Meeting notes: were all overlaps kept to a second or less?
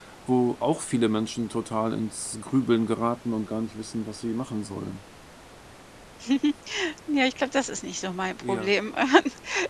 Yes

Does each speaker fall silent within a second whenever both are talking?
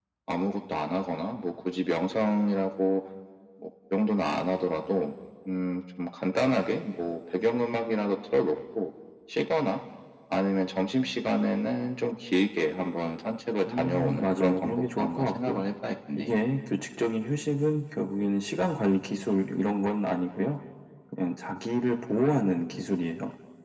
No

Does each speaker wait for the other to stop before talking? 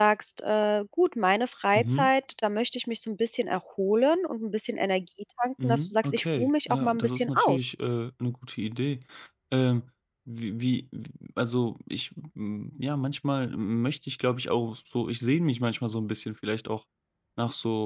No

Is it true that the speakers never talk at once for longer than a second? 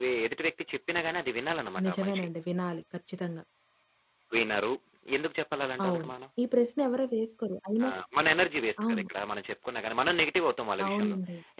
Yes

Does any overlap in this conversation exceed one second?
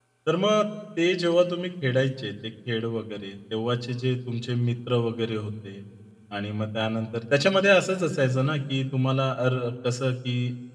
No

